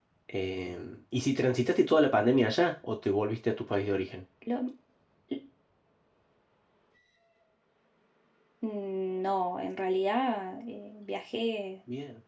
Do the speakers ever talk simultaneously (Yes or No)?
No